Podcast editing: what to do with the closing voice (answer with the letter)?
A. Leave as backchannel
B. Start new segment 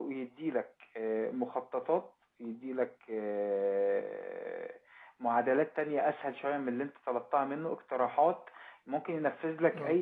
A